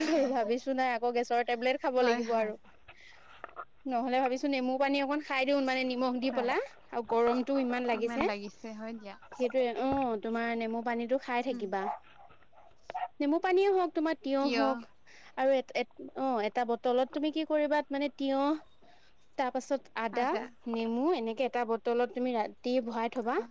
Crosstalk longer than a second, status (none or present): none